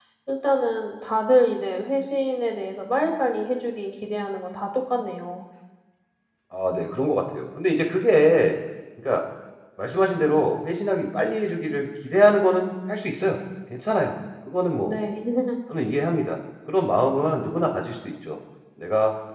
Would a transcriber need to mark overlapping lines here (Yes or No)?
No